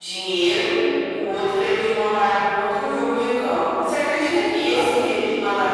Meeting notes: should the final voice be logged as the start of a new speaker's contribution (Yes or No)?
No